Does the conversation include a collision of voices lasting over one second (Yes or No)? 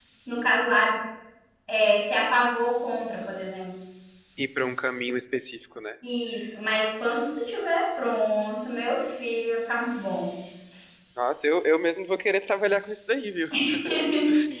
No